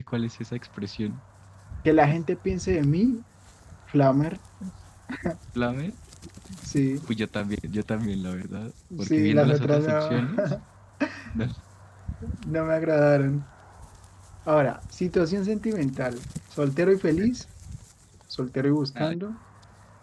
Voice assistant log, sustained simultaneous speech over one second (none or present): present